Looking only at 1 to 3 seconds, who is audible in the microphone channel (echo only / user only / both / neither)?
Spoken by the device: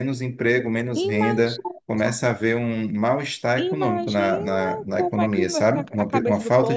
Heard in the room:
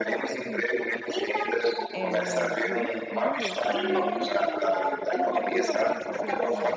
both